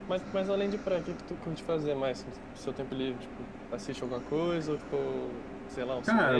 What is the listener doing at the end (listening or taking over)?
taking over